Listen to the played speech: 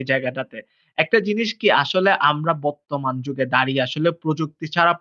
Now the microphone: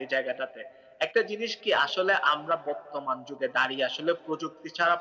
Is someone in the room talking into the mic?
No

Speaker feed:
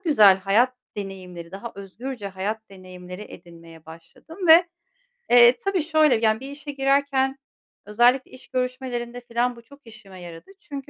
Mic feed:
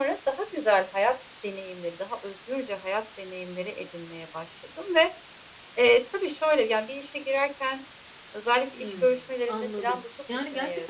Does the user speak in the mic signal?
Yes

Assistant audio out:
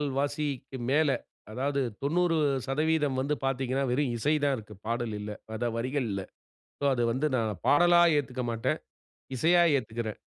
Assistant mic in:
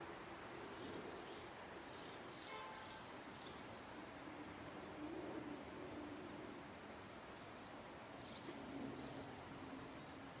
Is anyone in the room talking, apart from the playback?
No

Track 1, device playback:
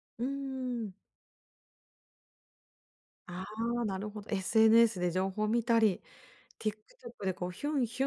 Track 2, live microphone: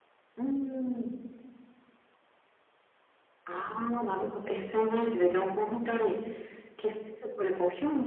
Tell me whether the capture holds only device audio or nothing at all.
Yes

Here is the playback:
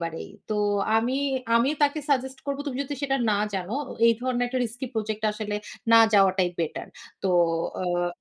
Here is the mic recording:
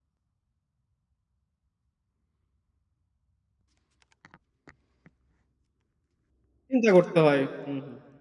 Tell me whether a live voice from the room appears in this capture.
Yes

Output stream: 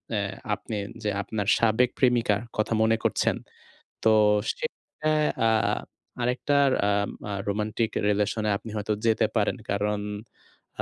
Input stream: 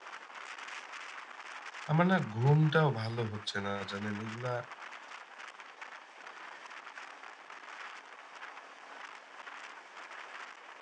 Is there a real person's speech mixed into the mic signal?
Yes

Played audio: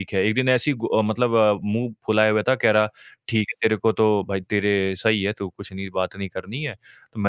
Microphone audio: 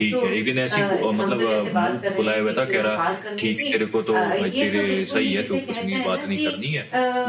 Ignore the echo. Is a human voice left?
Yes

